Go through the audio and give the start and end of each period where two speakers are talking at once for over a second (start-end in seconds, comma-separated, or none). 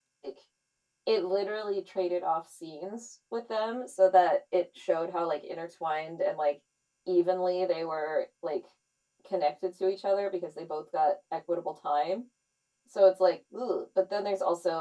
none